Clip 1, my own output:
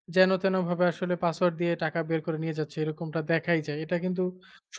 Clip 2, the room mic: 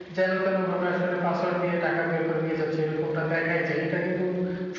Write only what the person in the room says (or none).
none